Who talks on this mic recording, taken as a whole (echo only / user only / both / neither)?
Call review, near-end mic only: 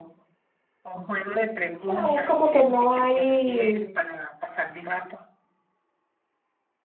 both